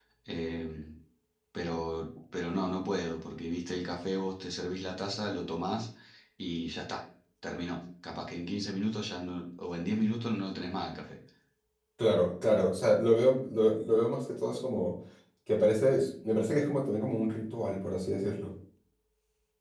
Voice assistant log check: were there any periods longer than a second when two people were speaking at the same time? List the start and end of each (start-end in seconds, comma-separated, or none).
none